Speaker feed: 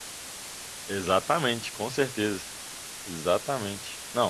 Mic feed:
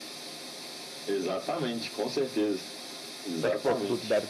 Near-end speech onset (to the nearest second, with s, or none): 3 s